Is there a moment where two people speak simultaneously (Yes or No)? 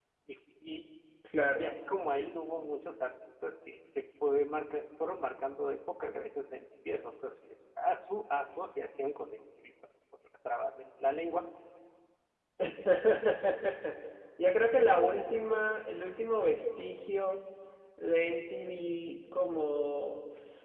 No